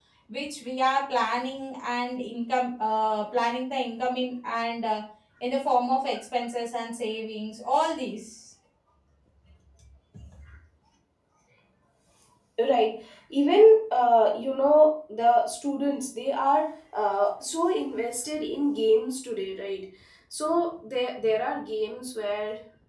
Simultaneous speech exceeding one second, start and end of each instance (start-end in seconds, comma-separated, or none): none